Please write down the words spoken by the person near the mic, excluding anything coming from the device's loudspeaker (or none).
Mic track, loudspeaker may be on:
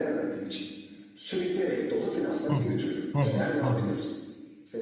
Hı hı. Hı hı. Hı hı.